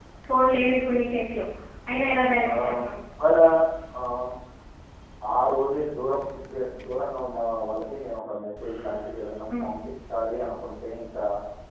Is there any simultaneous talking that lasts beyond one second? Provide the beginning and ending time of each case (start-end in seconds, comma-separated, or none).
none